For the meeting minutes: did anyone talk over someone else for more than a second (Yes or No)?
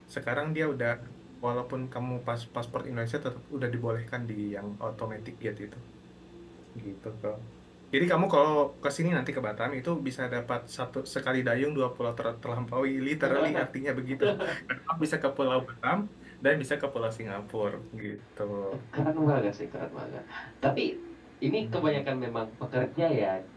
No